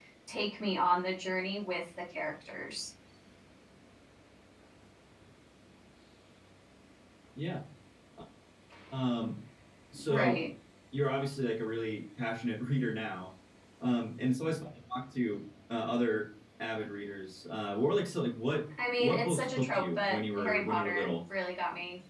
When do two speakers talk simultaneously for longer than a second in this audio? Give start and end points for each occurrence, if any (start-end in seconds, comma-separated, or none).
19.0-21.1